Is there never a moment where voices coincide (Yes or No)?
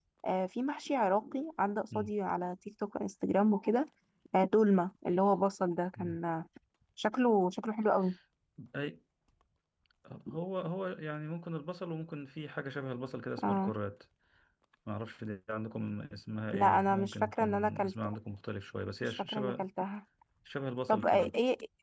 No